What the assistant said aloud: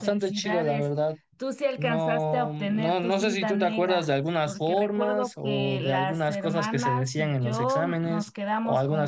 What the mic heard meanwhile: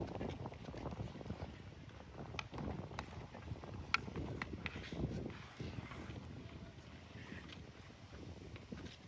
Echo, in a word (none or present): none